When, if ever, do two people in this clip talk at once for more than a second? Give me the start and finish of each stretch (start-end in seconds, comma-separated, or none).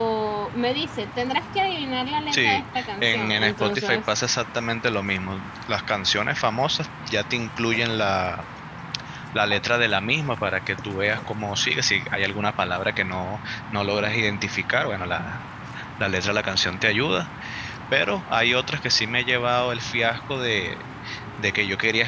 2.3-4.0